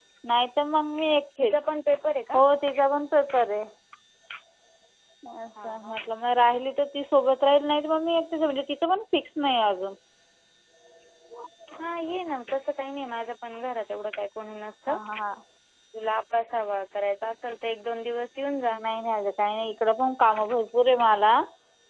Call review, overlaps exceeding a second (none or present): none